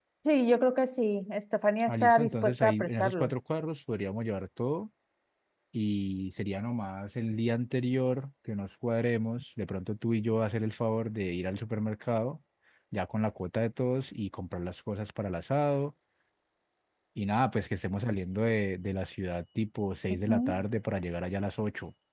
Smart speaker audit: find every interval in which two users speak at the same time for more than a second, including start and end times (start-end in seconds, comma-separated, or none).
1.9-3.3